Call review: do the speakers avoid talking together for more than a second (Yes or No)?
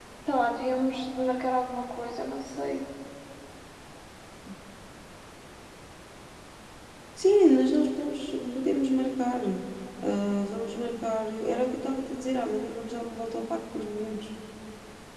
Yes